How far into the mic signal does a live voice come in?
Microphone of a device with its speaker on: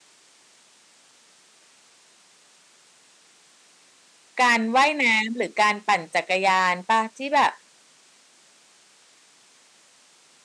4 s

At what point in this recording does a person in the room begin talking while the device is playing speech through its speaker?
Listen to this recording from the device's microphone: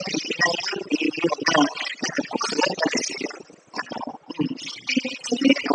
none

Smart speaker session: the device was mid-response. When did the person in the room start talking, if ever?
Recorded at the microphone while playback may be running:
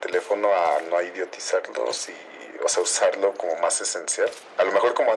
none

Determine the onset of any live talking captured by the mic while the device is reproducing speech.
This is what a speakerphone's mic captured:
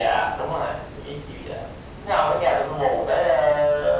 none

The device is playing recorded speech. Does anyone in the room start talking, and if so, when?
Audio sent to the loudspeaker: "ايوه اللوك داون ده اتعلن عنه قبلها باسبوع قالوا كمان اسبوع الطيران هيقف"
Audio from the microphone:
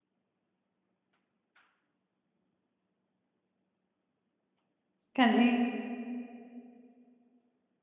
5 s

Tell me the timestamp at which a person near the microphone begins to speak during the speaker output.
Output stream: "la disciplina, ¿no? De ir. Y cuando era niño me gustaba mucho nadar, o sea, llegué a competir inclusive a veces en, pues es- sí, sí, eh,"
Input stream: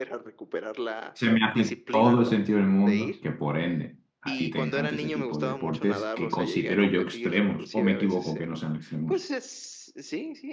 1 s

